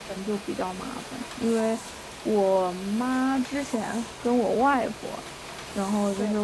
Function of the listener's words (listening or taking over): listening